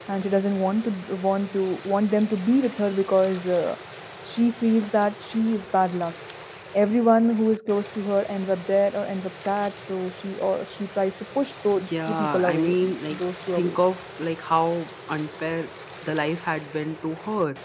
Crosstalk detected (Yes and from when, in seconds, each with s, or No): Yes, from 11.8 s